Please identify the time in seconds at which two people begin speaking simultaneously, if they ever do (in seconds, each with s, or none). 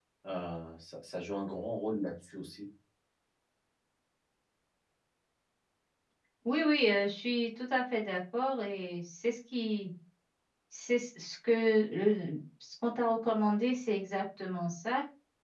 none